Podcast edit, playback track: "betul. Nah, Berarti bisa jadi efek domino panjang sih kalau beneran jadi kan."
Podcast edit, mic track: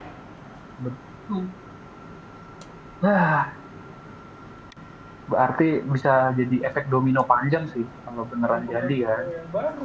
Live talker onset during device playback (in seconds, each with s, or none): 8.4 s